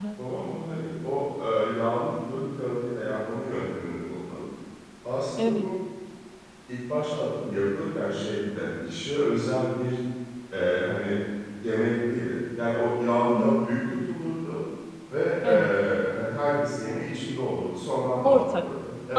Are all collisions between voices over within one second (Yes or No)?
Yes